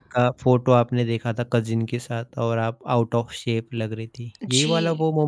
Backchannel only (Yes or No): No